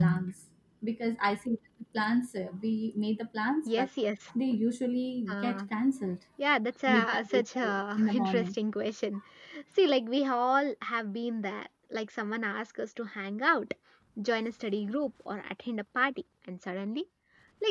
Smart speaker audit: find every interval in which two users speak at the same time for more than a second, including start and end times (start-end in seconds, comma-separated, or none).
6.9-8.5